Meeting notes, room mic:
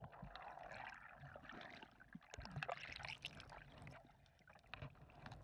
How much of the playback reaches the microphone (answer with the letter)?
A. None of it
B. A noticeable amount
A